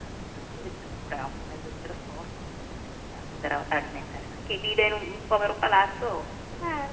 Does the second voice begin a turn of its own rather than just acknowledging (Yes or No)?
Yes